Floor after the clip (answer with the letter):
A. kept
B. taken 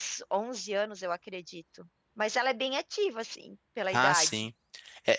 B